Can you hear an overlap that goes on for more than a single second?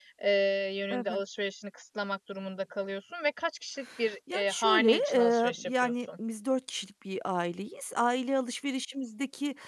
Yes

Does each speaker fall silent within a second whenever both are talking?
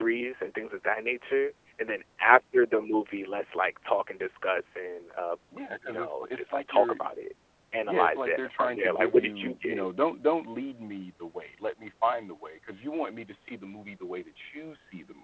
No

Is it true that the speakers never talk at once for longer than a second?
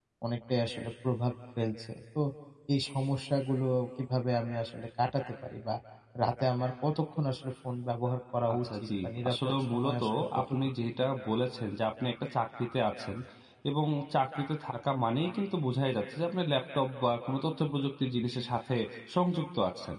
No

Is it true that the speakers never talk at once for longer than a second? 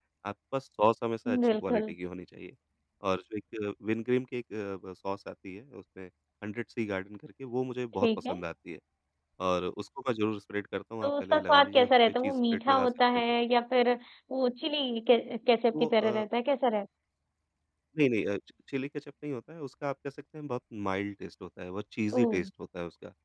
No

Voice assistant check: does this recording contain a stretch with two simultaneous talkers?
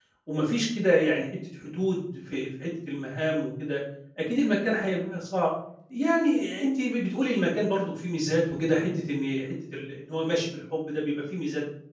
No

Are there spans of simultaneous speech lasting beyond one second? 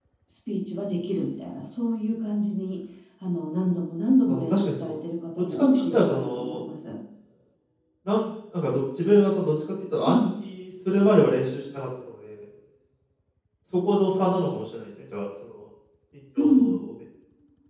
Yes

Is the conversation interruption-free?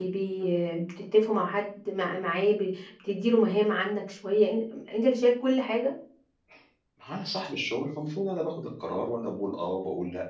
Yes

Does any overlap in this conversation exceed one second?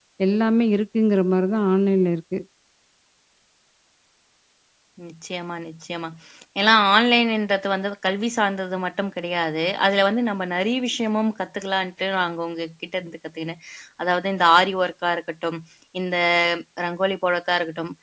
No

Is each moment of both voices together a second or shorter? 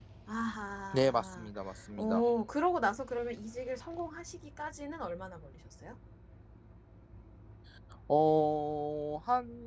Yes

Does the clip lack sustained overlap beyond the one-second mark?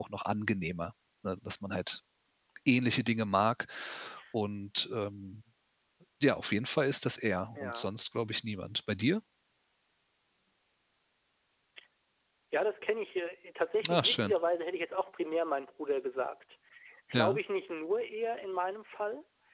Yes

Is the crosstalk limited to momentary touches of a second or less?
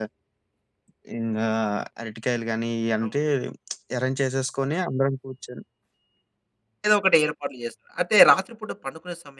Yes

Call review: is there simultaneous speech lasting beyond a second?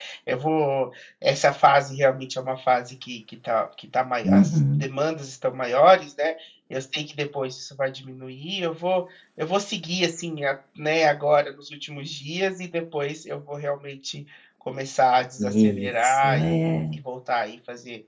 Yes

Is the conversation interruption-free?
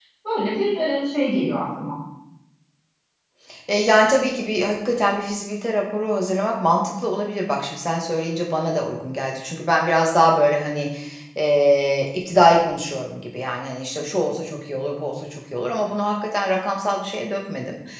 Yes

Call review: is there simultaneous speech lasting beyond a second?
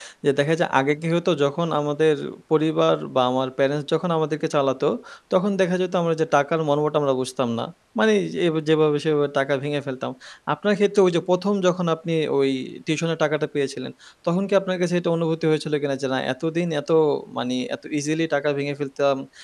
No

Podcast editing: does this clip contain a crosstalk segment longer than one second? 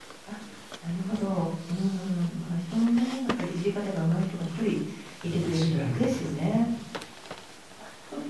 Yes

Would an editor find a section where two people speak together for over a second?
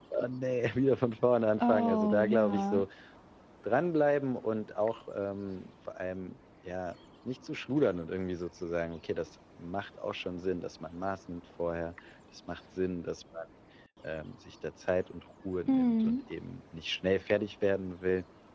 Yes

